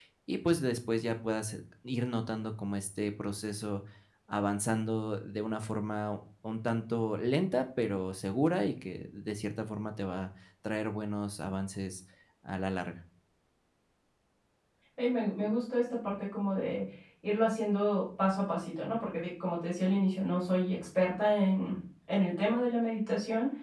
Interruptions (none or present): none